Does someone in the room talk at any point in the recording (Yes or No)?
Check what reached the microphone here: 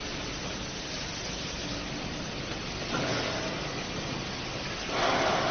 No